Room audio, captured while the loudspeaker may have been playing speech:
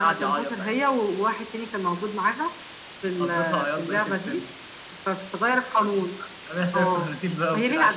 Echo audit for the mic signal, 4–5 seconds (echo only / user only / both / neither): echo only